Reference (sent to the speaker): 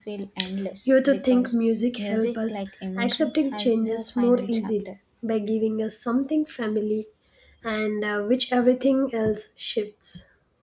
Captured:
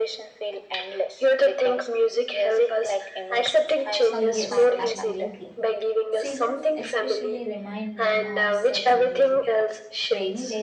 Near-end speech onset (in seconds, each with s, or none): 4.1 s